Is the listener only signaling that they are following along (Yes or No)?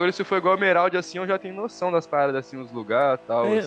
No